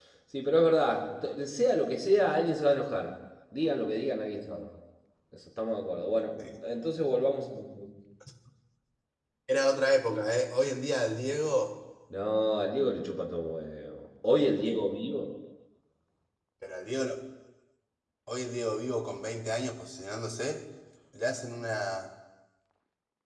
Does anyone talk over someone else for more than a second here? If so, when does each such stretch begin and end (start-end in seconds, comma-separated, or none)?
none